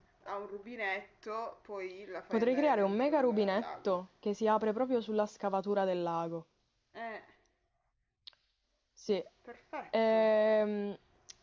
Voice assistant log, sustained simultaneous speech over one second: present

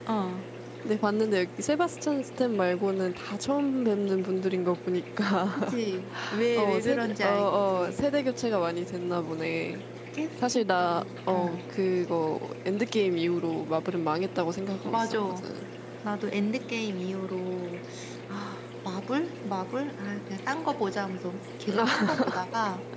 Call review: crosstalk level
present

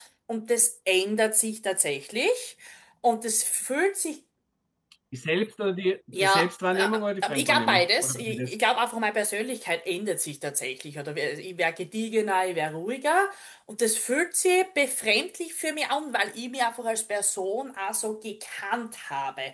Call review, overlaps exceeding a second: present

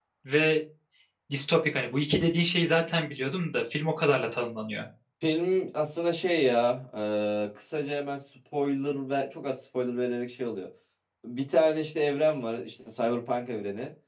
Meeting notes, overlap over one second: none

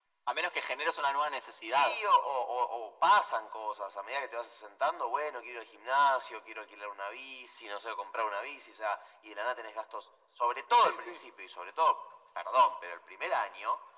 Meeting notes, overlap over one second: none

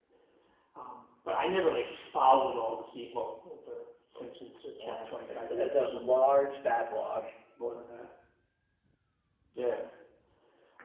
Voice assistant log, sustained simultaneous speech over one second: present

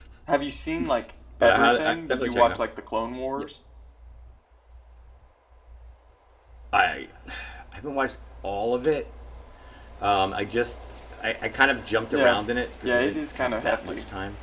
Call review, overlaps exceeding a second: present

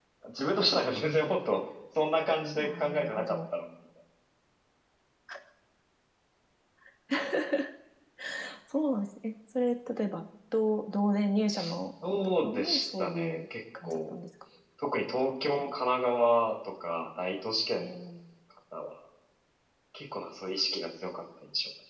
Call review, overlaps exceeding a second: present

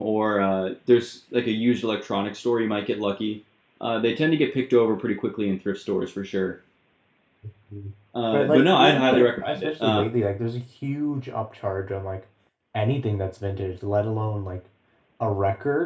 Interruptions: present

